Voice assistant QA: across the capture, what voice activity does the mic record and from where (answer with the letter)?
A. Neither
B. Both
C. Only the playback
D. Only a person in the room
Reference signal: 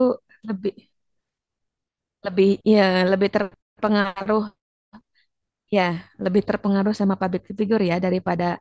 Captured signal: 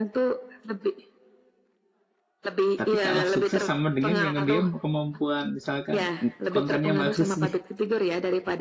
B